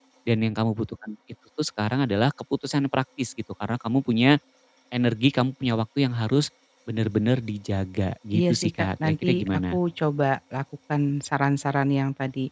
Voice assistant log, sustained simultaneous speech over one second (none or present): present